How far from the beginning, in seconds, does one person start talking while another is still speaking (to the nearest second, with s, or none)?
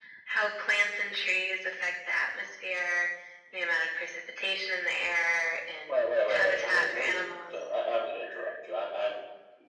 6 s